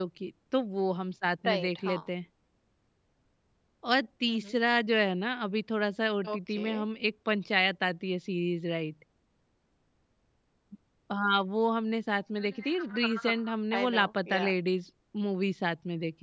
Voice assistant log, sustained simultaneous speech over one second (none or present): present